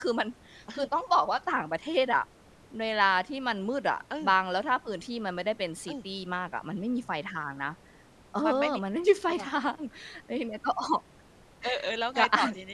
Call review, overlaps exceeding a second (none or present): none